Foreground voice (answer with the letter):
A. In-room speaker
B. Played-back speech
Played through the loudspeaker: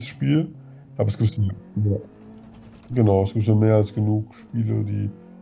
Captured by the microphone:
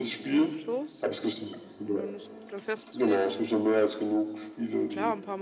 B